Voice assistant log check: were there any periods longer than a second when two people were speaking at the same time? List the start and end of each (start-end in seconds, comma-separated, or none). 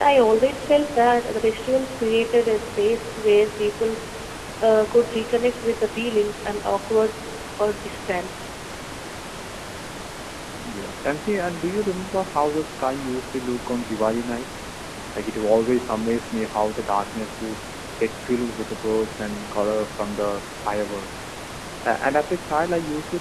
none